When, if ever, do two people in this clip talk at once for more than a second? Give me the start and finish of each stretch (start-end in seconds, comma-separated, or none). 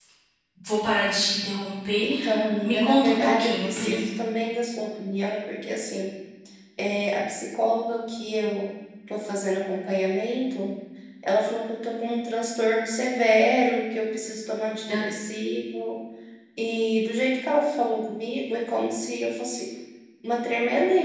2.6-4.0